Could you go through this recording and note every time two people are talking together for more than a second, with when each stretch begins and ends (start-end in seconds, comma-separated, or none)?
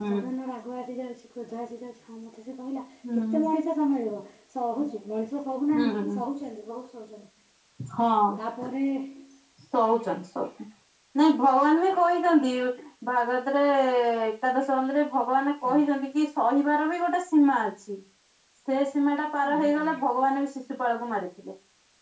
none